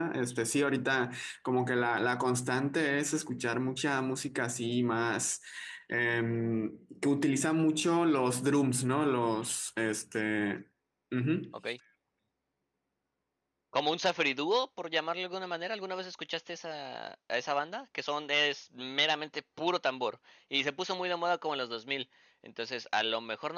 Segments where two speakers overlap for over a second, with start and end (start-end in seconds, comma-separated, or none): none